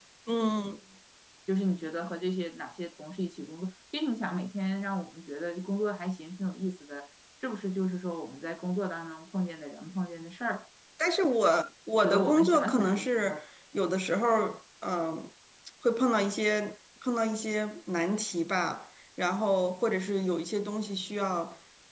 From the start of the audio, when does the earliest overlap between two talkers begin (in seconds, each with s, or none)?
12.0 s